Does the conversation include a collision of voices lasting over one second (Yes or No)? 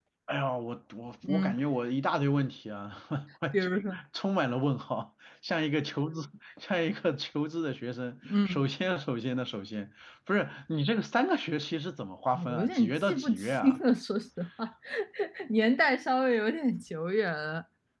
Yes